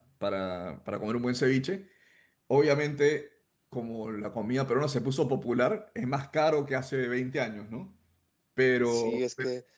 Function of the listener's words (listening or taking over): taking over